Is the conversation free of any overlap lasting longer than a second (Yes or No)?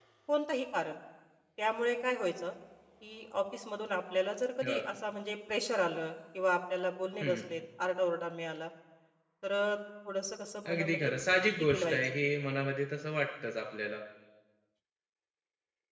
No